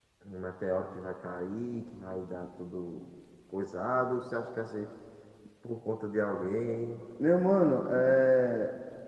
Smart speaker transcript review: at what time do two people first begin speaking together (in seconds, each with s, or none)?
none